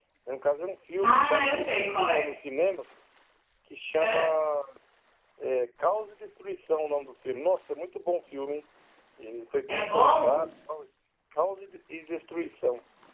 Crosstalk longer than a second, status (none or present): present